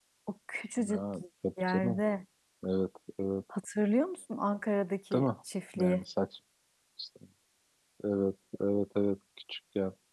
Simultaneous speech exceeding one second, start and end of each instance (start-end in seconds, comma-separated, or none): none